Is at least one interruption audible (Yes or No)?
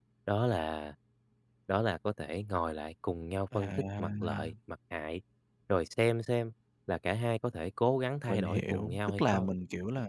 Yes